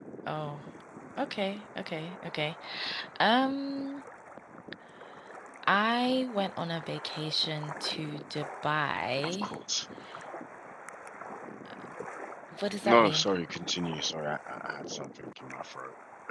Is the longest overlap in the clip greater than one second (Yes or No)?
No